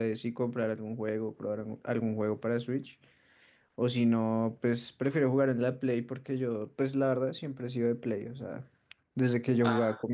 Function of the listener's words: listening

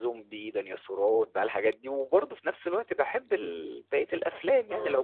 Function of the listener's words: listening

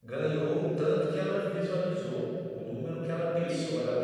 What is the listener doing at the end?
listening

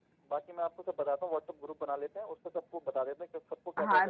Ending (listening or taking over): taking over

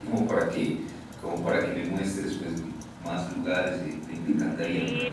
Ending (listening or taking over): taking over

